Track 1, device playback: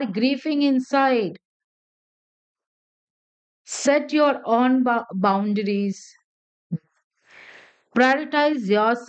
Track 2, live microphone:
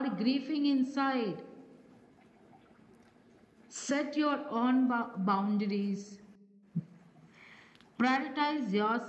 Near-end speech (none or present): none